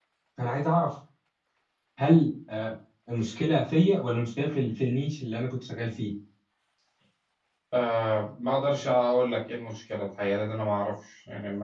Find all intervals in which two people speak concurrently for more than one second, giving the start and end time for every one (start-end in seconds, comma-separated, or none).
none